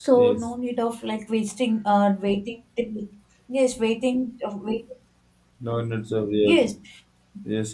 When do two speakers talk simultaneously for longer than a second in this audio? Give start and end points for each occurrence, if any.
none

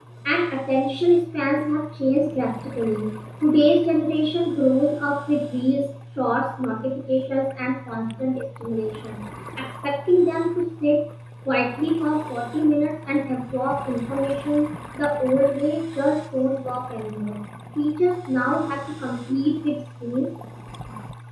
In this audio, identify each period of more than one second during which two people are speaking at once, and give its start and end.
none

